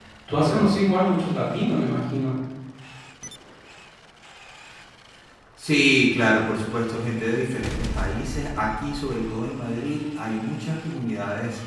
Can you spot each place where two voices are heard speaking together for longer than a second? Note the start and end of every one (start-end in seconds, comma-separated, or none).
none